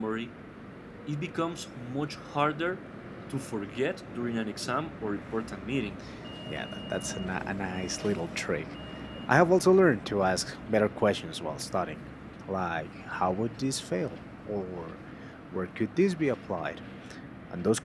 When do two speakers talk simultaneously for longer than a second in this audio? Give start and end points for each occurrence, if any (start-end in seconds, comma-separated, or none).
none